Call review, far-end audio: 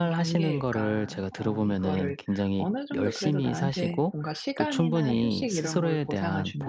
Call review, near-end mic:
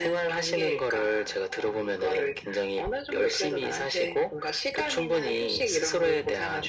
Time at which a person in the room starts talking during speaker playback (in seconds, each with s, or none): none